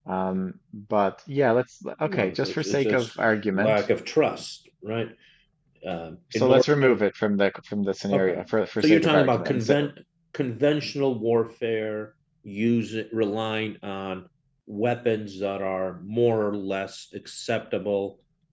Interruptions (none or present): present